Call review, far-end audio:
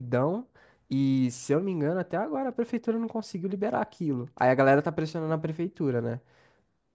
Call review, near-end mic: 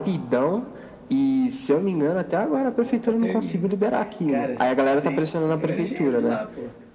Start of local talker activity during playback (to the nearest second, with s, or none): 3 s